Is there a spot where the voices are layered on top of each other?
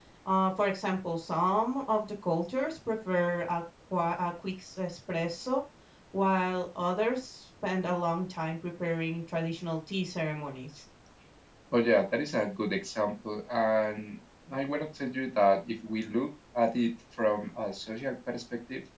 No

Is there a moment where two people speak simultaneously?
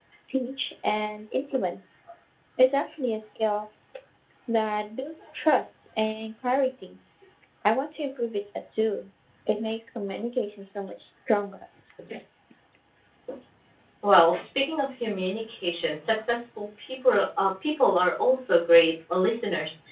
No

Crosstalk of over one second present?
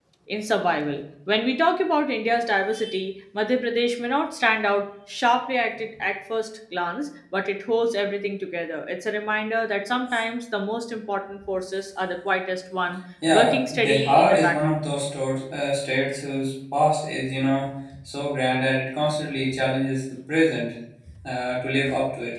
Yes, from 13.2 s

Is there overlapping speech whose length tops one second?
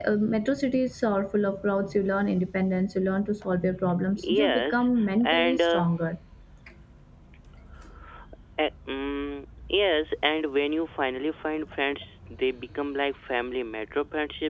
Yes, from 4.2 s

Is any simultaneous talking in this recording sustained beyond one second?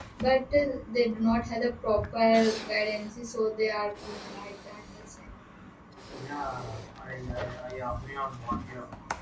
No

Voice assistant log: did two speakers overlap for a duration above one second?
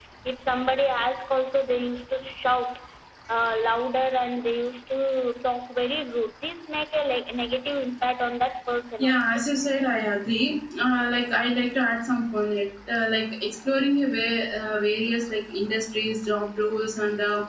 No

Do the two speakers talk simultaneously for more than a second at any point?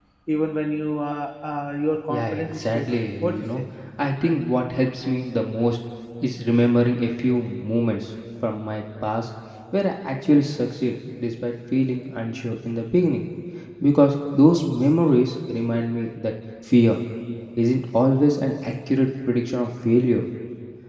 Yes, from 2.1 s

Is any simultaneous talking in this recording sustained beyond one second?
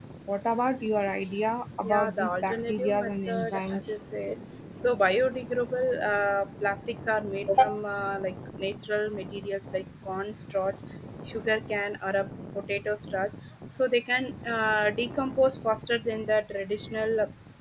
Yes, from 1.8 s

